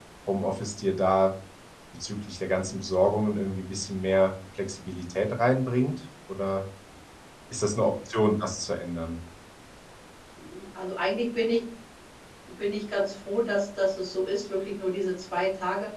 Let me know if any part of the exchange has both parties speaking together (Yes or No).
No